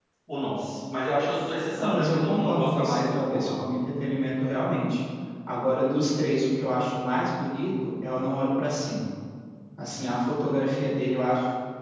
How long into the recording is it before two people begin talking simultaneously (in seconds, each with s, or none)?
1.8 s